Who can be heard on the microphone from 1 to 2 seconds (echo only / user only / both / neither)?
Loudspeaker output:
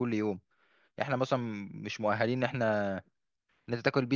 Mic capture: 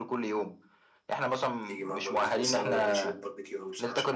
both